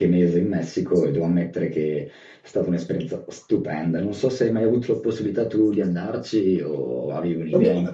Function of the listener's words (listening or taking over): taking over